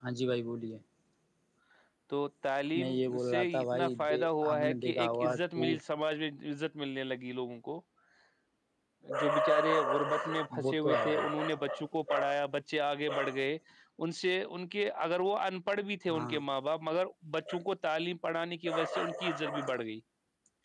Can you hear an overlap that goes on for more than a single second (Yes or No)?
Yes